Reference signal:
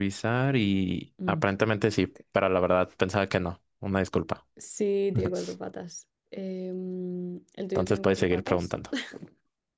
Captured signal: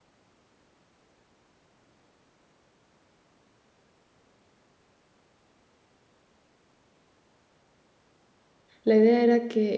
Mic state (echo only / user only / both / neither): user only